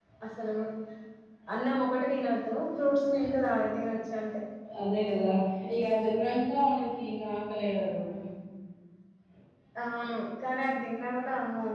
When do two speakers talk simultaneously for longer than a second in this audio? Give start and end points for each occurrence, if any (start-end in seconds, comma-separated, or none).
none